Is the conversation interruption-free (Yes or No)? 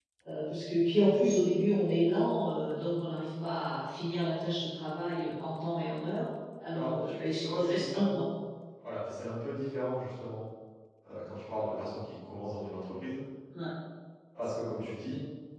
No